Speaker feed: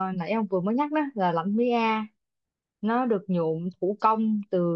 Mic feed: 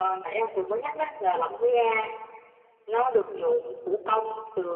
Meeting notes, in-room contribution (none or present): none